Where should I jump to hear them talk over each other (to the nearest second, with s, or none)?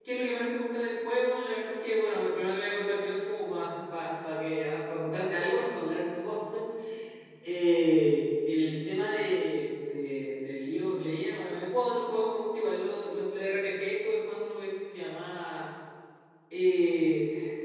none